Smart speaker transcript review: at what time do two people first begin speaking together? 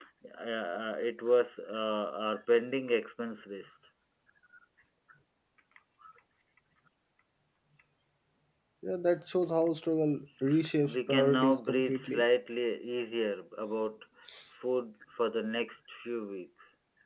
11 s

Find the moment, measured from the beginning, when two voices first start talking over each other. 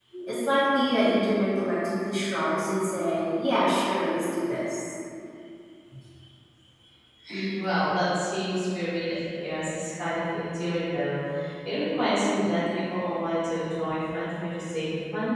none

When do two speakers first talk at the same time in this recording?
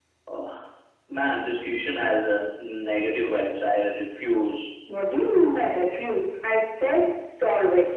none

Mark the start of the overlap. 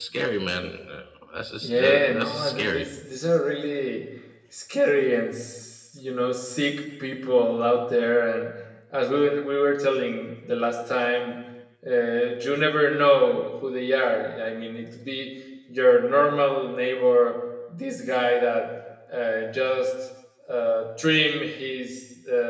2 s

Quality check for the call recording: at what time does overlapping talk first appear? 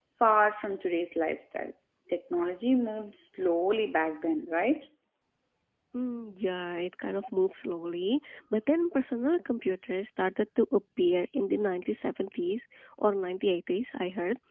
none

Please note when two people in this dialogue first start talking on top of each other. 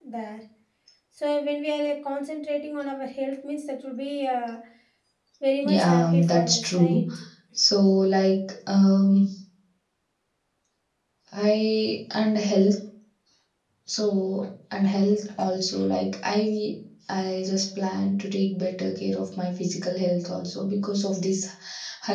6 s

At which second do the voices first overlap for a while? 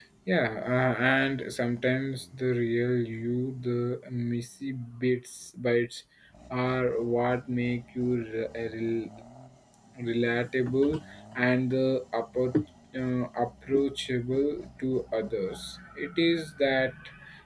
none

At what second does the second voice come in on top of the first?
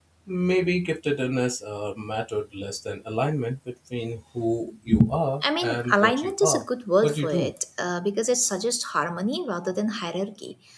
5 s

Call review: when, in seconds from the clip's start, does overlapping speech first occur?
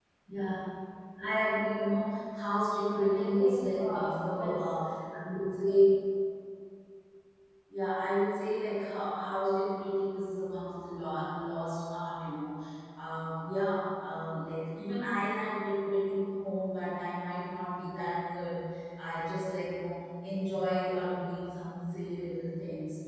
3 s

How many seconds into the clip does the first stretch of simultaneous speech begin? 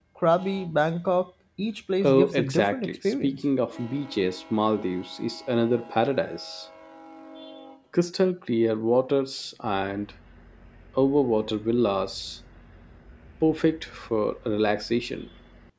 2 s

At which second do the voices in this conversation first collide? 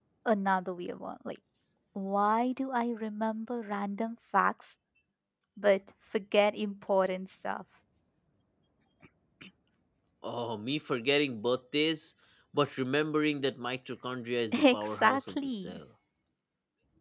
15 s

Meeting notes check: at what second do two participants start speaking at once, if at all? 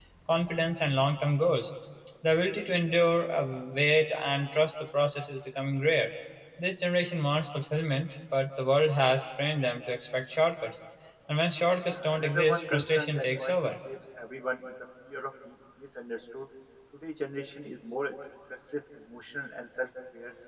12 s

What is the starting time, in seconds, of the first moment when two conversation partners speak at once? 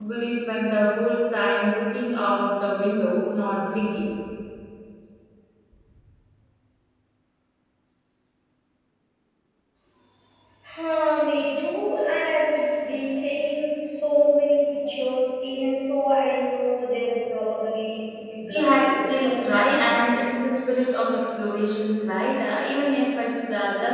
19 s

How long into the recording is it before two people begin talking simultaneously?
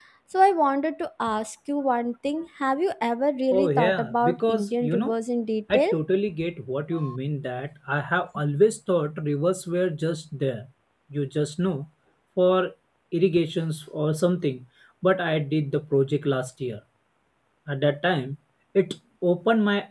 4 s

